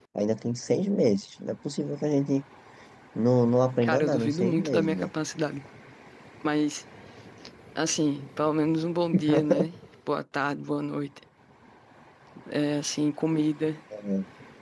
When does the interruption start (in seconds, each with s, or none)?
3.8 s